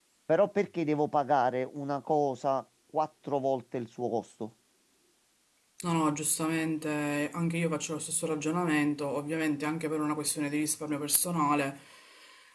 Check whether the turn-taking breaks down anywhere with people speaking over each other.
No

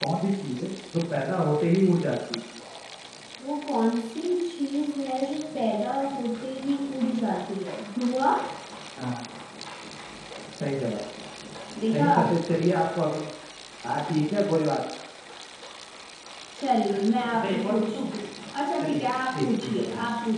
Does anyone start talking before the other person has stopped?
Yes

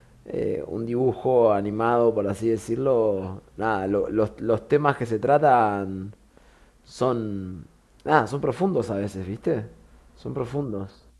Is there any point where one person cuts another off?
No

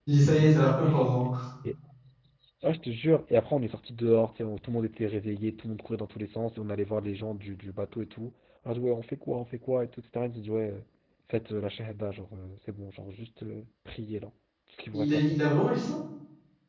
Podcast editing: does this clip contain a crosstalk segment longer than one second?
No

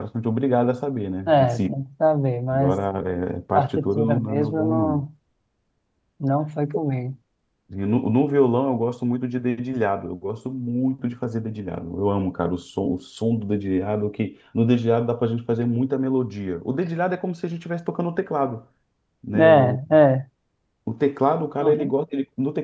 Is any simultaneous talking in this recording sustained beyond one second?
Yes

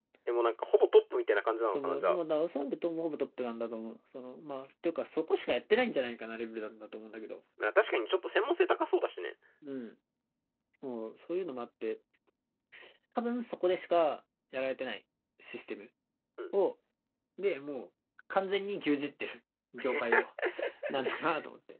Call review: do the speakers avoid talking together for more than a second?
Yes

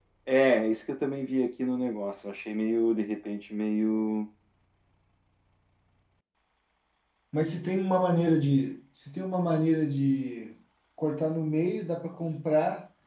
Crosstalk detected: No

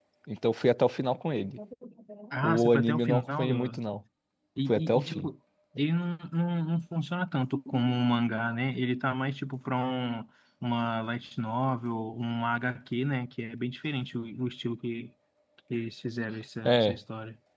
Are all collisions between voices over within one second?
No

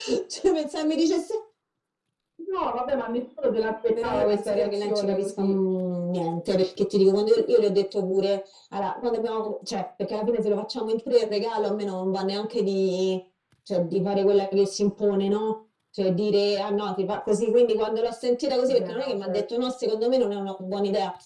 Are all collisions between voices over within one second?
No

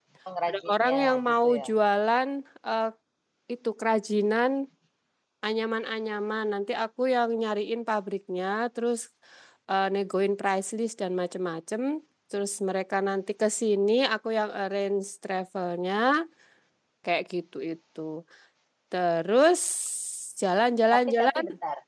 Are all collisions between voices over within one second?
No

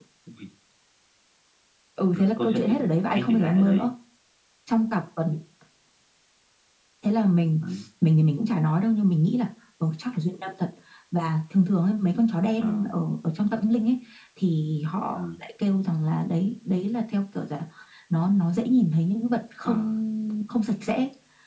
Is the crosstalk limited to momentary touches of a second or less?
No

